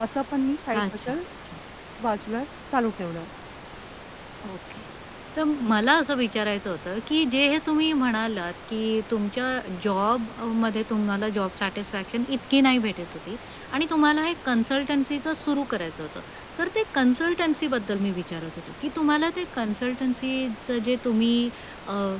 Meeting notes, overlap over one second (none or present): none